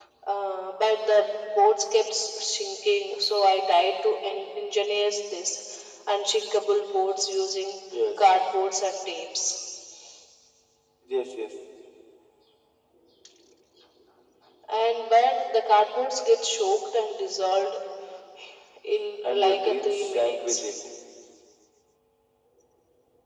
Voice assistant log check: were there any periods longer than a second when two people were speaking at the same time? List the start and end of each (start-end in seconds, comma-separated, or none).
19.2-20.6